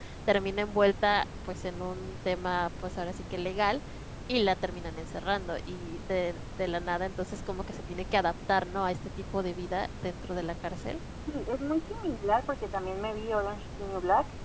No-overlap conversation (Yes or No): Yes